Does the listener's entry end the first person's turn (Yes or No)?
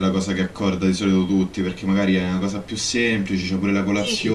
Yes